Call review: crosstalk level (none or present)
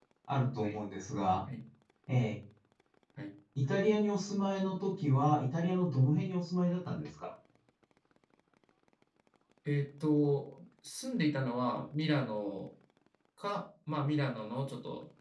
none